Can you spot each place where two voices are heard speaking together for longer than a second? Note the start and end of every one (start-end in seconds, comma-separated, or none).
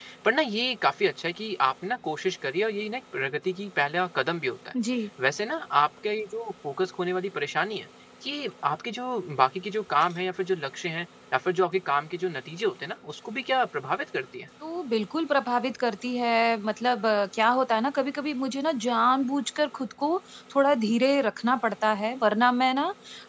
none